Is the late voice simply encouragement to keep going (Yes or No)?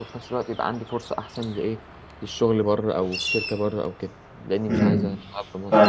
No